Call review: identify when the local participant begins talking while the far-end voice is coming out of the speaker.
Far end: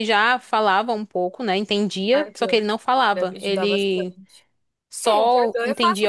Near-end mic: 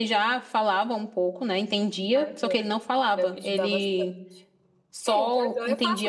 none

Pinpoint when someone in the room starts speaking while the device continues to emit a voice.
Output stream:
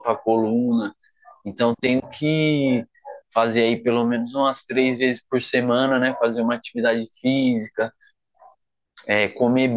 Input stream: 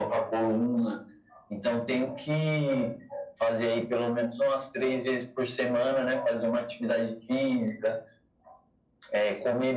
none

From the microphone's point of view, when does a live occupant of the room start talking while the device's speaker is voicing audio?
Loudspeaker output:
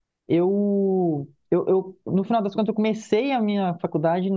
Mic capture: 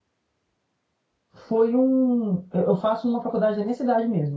1.5 s

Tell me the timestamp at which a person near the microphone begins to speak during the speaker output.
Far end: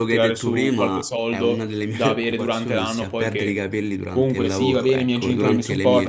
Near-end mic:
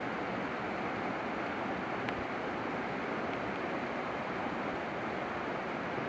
none

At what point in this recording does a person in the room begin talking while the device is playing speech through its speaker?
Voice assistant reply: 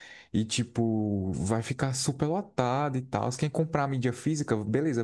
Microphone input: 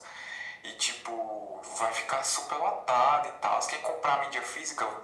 none

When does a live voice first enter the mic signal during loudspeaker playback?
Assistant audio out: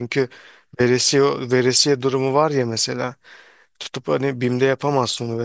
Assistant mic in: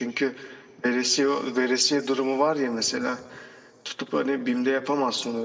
none

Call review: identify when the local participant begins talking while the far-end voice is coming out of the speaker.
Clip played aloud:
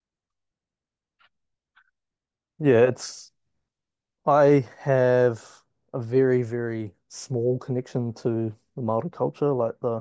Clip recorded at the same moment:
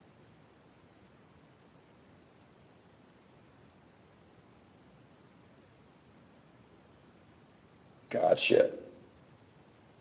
8.1 s

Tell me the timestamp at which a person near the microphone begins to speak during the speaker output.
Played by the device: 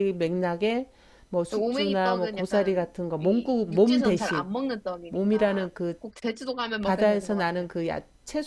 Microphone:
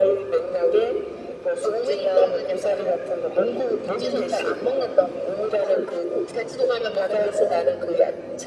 none

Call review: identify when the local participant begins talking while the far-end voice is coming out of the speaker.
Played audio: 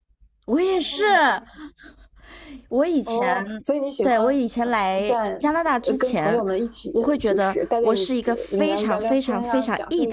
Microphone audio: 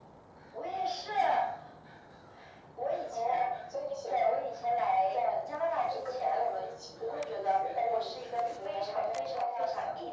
none

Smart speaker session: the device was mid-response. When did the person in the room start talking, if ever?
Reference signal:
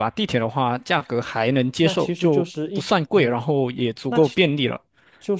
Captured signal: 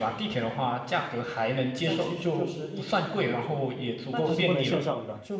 4.2 s

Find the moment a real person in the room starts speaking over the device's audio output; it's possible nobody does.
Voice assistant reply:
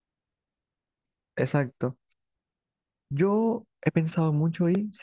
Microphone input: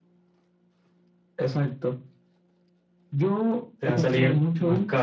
3.8 s

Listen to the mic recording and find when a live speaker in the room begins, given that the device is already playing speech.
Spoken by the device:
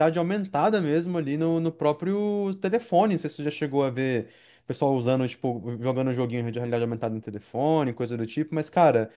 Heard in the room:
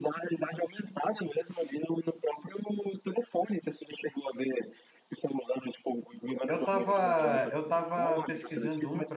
6.5 s

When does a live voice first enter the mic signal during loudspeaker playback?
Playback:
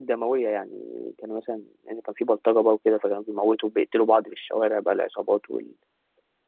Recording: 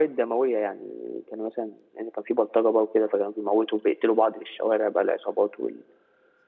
none

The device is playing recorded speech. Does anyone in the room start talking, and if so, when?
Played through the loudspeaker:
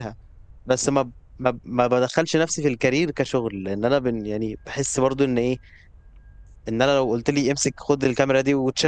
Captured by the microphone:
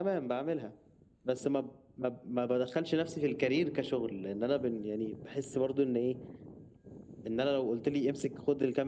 none

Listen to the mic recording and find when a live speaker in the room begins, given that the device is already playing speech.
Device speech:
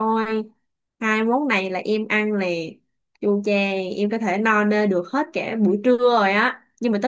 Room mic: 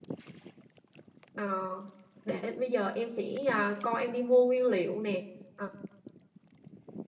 1.3 s

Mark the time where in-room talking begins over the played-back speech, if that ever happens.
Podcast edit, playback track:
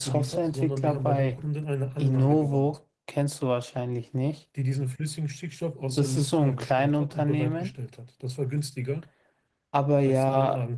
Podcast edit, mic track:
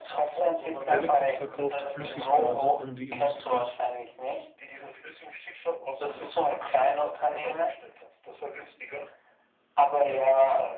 0.9 s

